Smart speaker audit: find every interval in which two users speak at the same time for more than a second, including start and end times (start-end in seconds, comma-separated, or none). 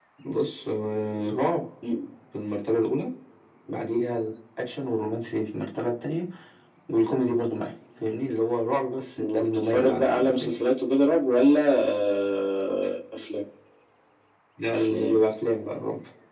9.2-10.6